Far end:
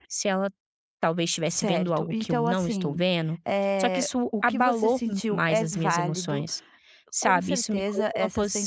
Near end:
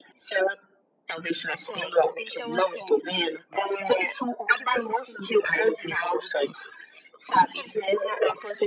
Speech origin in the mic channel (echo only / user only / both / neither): echo only